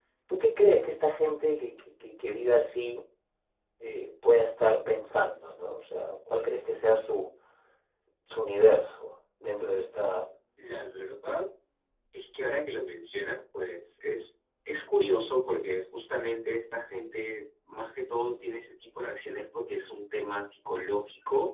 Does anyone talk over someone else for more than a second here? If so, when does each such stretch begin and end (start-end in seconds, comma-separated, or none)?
none